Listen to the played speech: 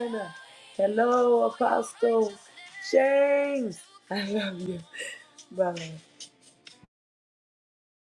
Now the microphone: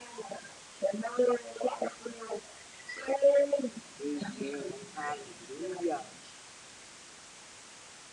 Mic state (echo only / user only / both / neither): both